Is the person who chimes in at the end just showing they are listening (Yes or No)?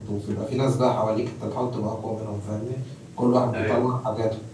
Yes